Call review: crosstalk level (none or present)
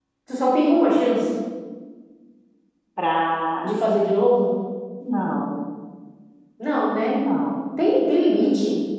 none